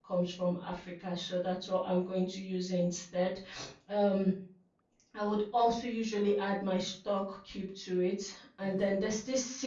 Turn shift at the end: No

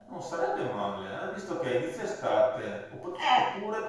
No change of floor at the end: Yes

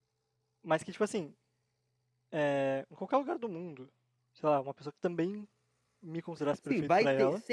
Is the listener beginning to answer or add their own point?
Yes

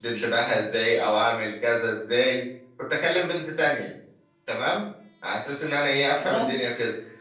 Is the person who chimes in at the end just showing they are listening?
Yes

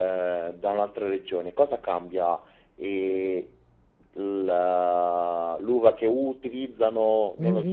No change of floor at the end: No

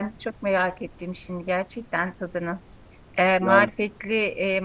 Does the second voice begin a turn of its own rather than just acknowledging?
No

